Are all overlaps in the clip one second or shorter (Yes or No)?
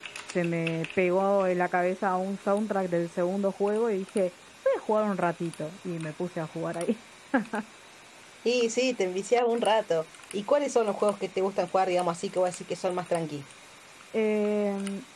Yes